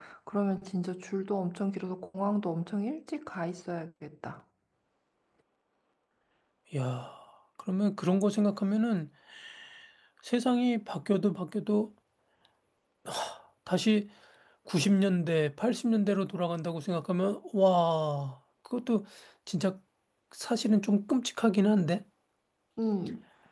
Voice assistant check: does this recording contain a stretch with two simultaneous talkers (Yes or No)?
No